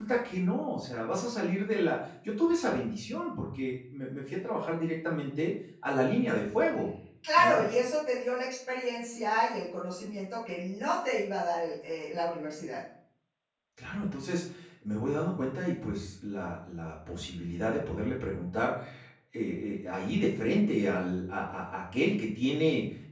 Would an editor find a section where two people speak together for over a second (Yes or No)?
No